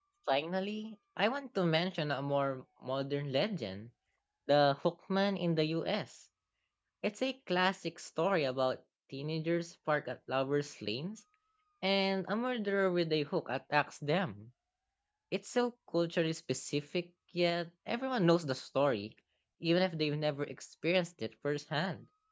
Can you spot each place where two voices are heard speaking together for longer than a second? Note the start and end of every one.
none

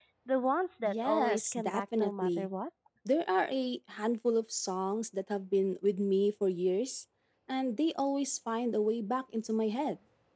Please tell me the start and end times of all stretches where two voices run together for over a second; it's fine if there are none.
0.8-2.5

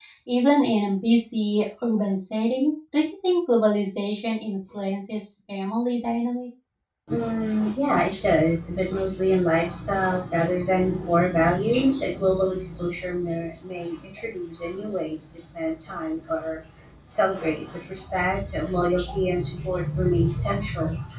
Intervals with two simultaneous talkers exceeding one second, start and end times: none

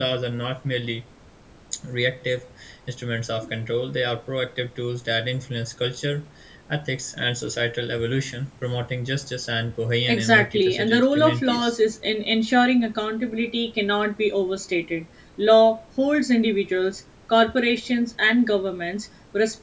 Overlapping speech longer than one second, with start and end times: 10.1-11.7

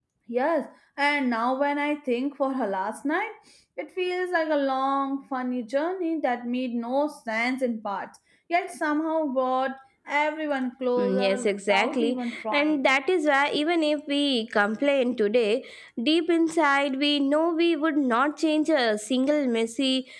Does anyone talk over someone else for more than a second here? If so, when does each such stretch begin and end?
11.0-12.9

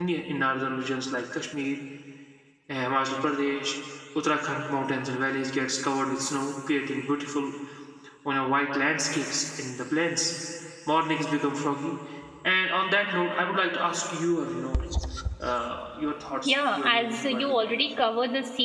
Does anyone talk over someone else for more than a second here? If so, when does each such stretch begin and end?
16.4-17.7

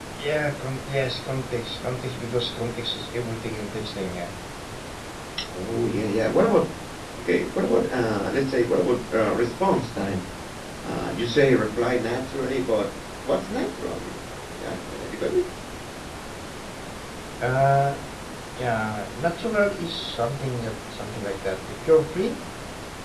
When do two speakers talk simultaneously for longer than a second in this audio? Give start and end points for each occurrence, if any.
none

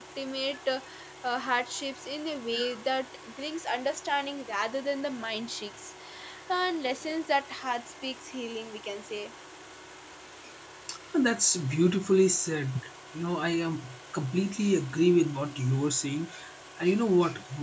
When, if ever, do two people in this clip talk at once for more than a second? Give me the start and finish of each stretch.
none

